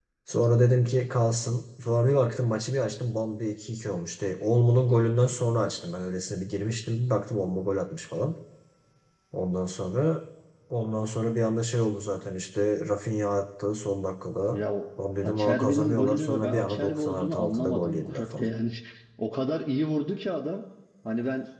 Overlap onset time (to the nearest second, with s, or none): 15 s